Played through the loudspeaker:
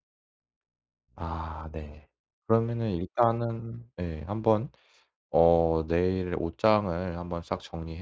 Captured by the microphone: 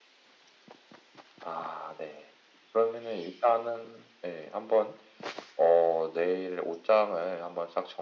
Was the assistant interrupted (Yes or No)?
No